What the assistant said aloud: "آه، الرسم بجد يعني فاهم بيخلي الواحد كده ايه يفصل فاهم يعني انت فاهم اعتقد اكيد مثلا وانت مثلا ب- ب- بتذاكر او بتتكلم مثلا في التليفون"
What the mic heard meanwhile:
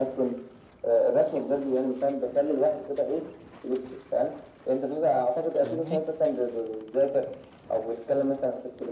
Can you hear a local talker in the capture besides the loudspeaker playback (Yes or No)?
Yes